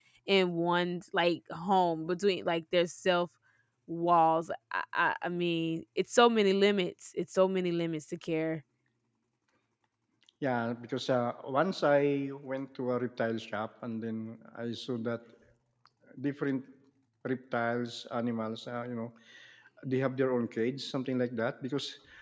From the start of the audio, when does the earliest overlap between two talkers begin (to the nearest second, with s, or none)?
none